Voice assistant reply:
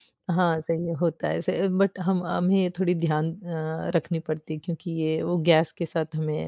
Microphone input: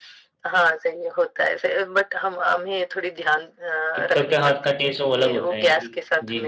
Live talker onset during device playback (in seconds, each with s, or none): 3.9 s